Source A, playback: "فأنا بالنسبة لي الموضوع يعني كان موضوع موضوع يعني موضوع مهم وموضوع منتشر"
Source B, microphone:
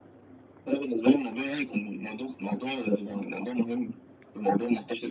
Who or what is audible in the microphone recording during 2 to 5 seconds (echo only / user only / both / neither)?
echo only